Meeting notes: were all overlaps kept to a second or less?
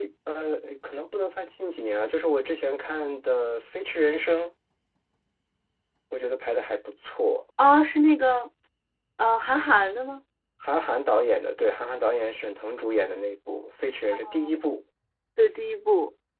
Yes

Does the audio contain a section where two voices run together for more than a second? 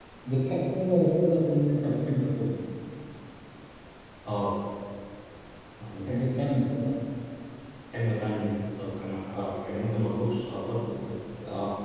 No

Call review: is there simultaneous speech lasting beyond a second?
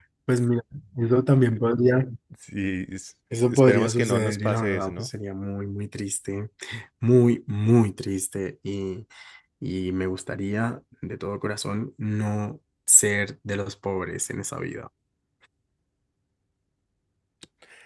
Yes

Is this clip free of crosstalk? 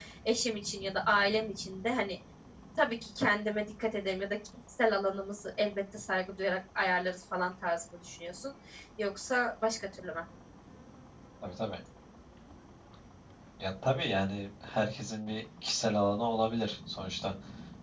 Yes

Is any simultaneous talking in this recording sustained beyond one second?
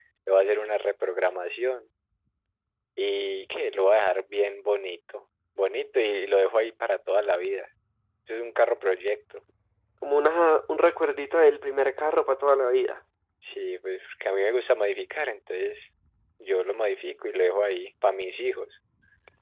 No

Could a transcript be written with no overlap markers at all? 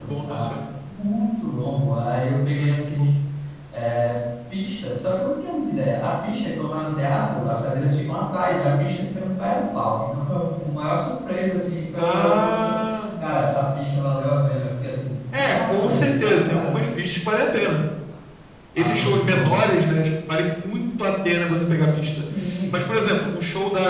No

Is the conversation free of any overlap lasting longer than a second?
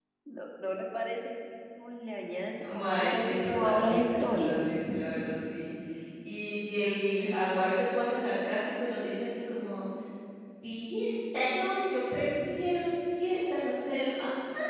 No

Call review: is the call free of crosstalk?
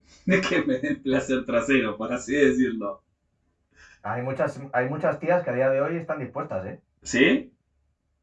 Yes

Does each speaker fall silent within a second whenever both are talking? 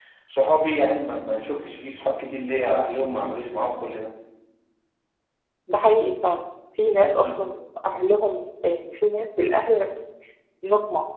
Yes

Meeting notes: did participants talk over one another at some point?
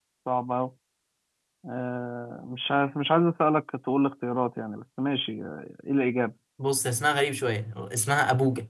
No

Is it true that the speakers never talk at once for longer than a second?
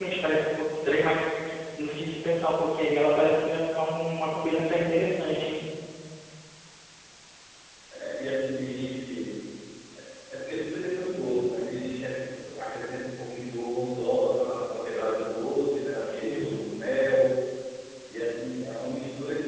Yes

